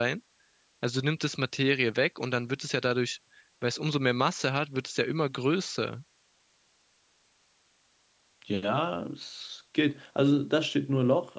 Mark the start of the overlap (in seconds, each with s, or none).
none